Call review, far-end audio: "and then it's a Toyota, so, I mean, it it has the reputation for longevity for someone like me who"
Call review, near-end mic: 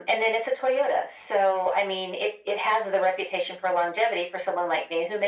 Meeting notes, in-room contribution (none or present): none